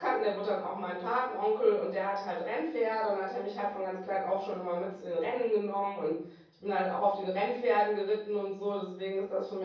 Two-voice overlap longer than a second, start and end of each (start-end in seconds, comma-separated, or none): none